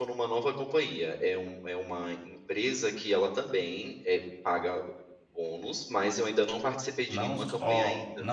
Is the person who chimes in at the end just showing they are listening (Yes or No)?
No